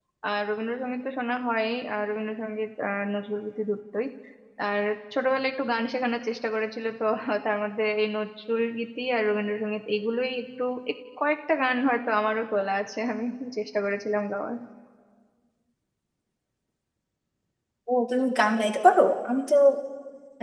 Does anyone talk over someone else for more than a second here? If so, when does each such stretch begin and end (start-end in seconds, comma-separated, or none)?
none